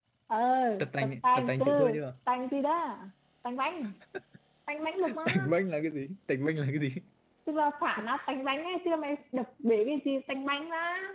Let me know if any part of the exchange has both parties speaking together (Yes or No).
Yes